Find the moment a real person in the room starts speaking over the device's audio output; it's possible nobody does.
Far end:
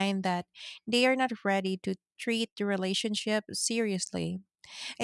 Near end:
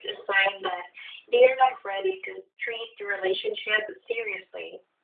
none

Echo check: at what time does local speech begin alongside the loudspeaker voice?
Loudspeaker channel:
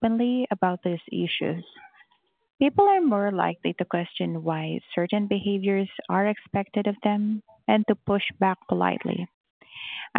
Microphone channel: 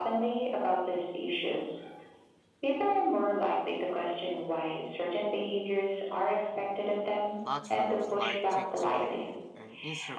7.4 s

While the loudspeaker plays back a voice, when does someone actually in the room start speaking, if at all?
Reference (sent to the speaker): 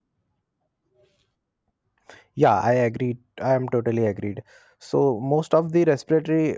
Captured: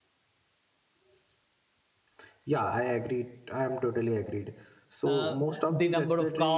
5.0 s

